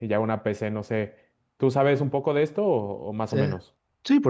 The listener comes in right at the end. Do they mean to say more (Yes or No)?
Yes